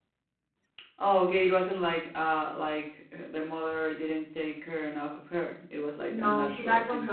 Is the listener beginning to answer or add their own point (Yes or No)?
Yes